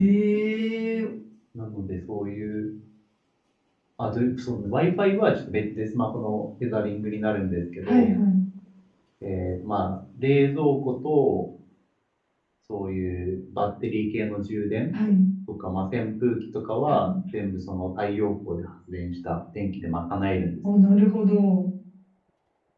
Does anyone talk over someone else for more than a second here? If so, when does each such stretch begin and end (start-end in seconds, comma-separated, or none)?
none